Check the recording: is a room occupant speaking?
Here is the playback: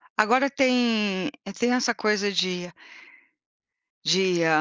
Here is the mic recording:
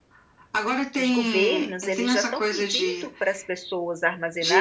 Yes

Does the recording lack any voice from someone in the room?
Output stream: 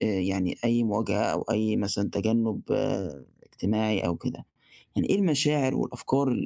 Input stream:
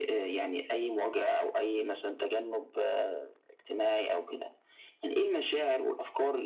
Yes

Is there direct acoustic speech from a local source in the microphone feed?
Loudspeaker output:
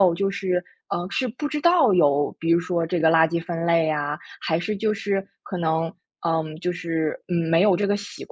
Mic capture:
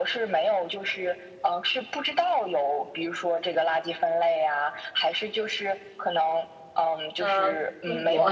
Yes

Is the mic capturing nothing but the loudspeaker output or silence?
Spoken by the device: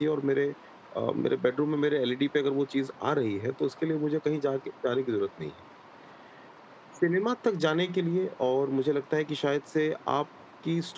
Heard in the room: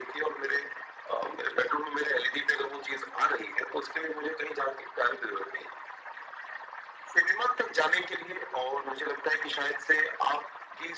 Yes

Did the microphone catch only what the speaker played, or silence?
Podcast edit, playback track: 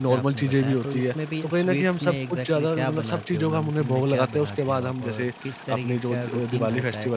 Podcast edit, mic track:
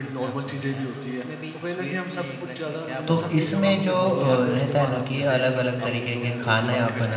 No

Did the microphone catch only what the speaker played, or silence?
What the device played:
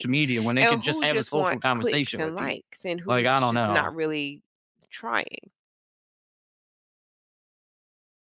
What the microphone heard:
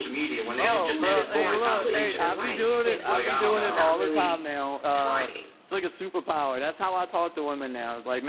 No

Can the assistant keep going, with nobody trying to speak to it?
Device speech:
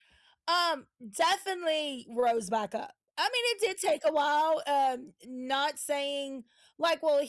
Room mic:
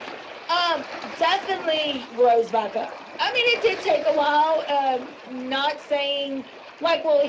Yes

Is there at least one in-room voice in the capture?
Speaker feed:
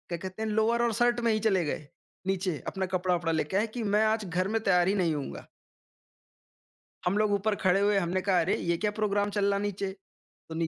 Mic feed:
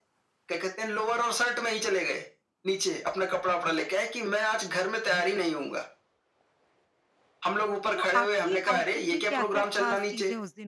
Yes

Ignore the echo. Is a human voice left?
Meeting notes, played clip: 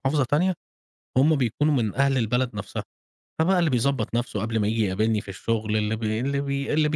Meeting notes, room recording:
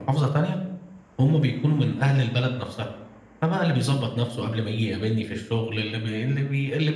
No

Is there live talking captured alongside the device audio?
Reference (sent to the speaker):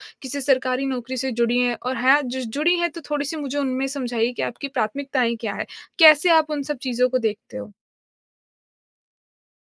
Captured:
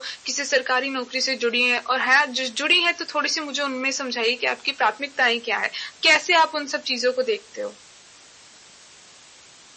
No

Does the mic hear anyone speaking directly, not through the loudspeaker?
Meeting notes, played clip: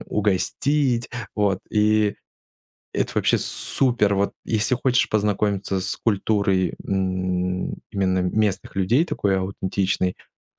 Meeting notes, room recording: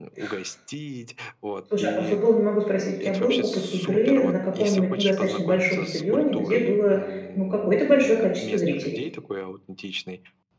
Yes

